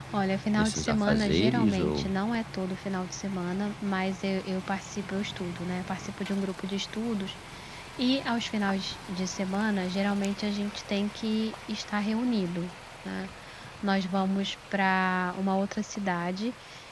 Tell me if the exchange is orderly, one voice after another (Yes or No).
No